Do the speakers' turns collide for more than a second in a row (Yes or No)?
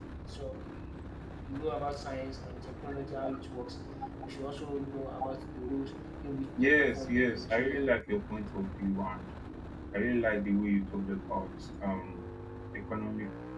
Yes